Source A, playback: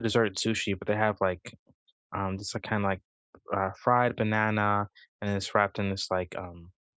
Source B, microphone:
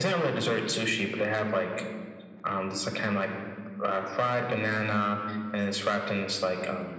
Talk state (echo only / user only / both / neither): echo only